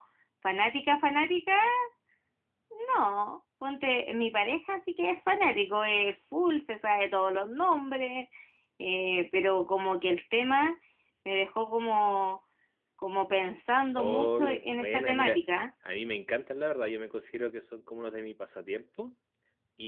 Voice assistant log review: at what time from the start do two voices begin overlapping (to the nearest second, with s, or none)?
14 s